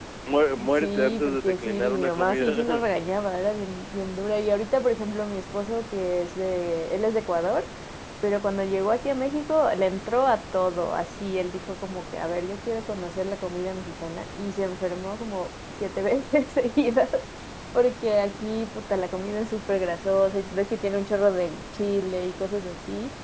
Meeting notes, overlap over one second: present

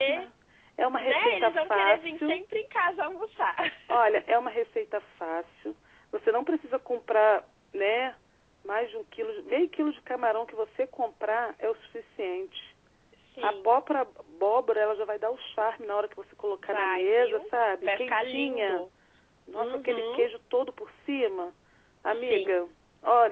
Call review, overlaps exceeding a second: present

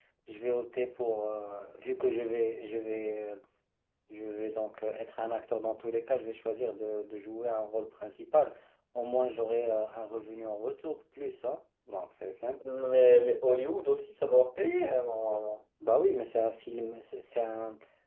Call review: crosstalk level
none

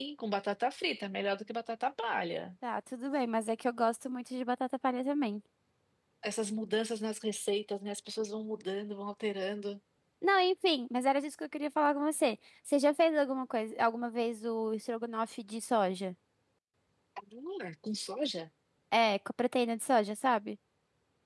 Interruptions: none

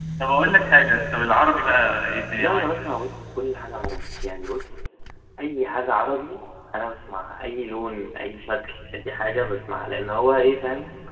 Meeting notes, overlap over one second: none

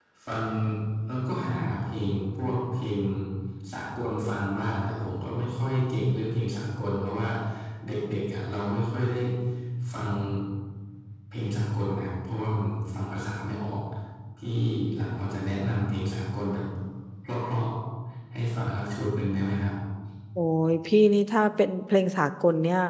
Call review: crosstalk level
none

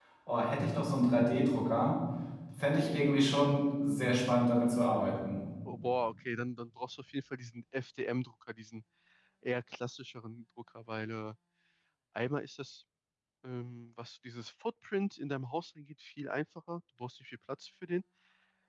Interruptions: none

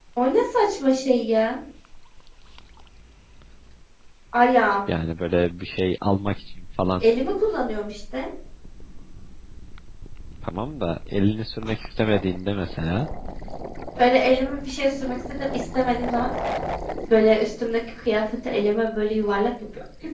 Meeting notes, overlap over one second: none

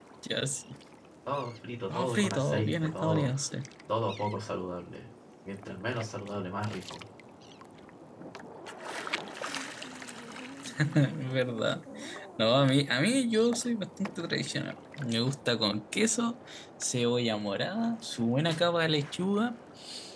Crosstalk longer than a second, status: present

